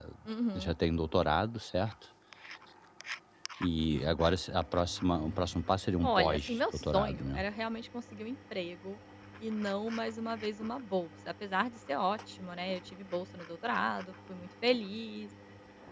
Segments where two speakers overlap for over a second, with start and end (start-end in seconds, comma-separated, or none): 6.0-7.4